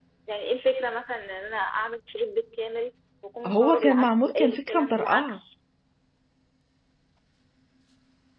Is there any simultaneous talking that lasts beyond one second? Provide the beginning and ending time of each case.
3.5-5.4

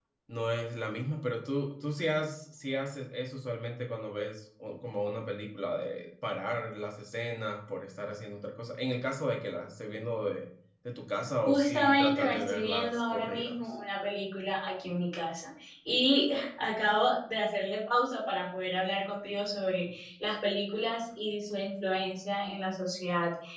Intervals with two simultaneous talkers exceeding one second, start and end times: 11.4-13.6

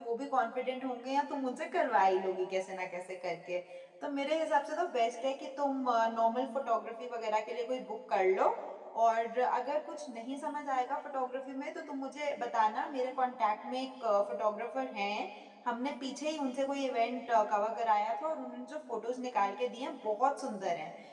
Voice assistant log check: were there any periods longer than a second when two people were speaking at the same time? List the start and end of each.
none

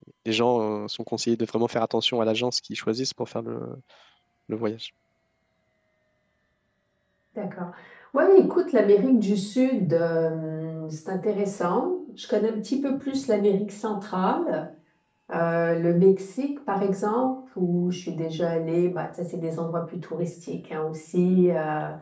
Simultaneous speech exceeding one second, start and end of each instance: none

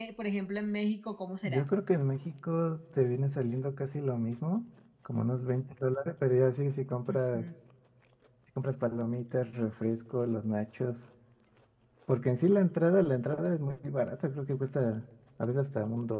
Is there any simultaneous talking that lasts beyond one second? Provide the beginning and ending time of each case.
none

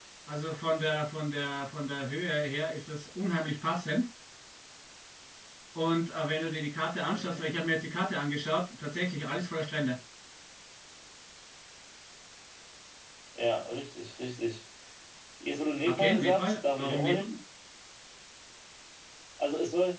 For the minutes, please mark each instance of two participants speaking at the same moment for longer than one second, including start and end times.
15.9-17.4

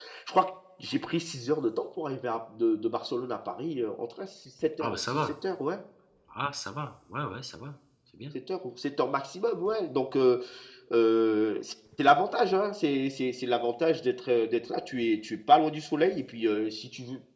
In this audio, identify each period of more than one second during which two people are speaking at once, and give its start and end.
none

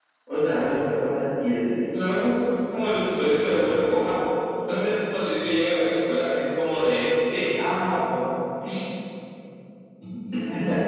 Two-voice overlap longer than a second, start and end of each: none

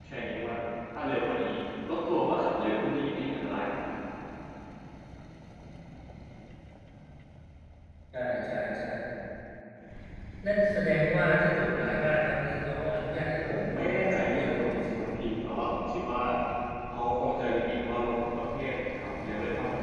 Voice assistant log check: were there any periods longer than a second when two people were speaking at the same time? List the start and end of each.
13.5-14.9

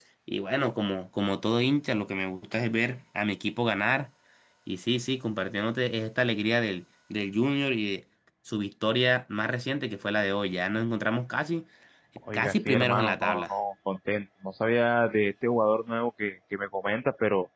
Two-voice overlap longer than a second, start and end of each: 12.3-13.5

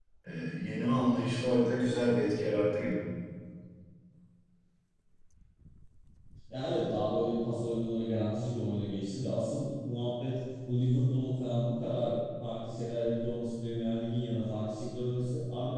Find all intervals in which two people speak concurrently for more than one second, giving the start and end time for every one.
none

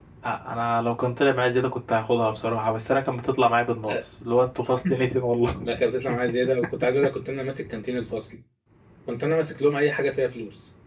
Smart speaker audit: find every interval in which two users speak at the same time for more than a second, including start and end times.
none

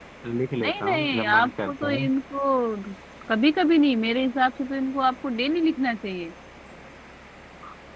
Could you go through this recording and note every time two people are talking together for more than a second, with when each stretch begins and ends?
0.6-2.1

